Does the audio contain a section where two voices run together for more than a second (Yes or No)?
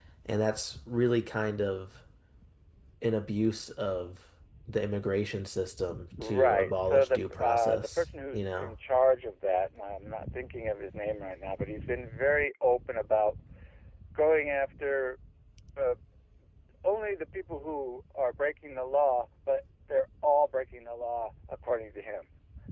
Yes